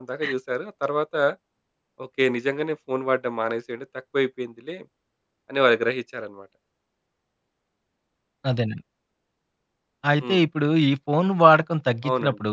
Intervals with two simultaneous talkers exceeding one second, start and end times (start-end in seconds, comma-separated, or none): none